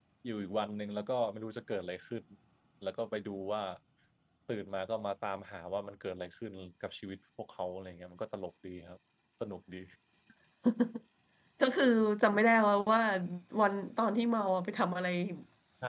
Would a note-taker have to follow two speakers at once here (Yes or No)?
No